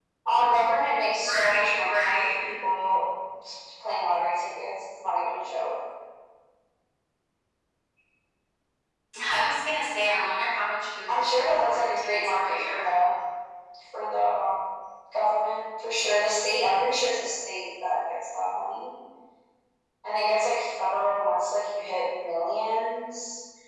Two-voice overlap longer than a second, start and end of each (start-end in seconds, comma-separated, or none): 1.1-2.6, 11.1-12.8